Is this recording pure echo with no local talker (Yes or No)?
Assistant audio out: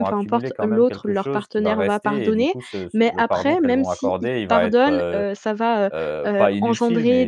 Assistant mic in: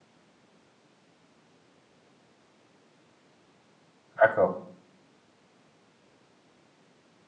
No